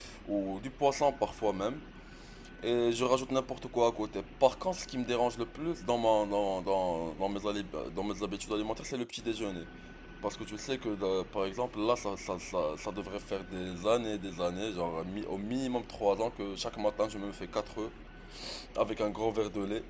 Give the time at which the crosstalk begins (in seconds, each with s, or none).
none